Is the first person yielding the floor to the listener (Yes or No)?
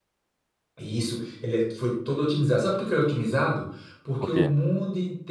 No